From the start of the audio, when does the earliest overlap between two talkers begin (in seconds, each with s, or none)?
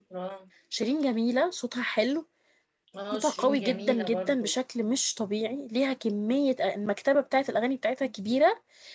3.1 s